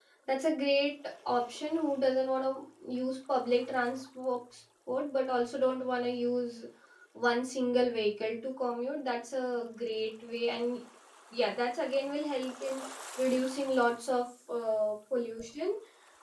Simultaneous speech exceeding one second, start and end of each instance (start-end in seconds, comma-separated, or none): none